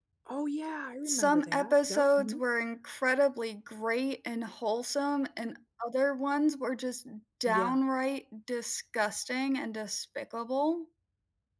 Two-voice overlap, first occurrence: 1.1 s

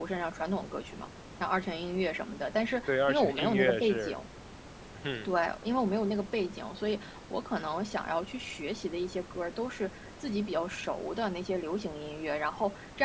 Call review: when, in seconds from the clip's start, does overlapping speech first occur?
2.9 s

